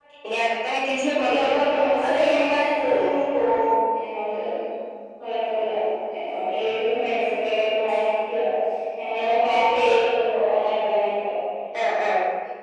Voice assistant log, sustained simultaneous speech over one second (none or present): present